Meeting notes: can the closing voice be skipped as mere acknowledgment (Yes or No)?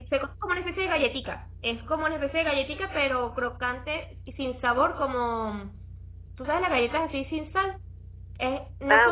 Yes